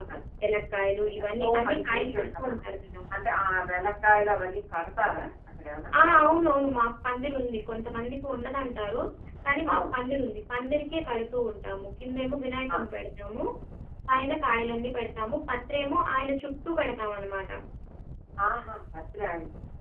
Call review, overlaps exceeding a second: present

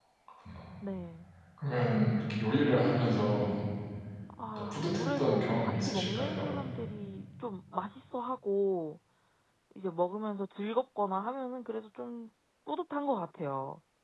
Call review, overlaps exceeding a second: present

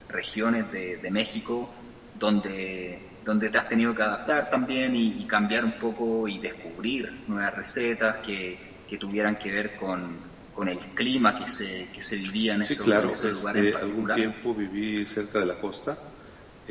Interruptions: present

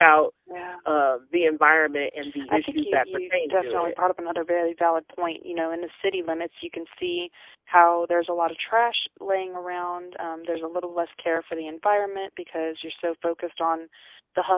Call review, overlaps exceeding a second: present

